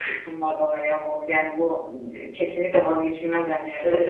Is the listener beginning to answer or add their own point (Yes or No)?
Yes